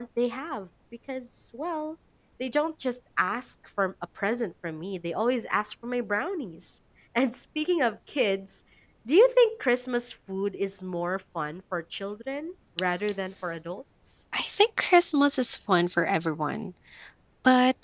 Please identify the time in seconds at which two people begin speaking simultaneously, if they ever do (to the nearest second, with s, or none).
none